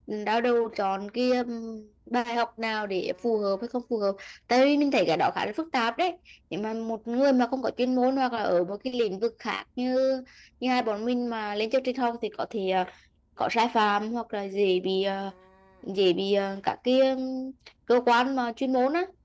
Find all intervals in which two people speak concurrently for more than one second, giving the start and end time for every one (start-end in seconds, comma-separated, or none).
none